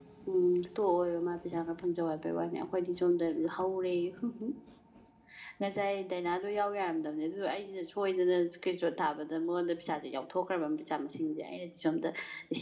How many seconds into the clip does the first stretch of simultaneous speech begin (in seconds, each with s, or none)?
none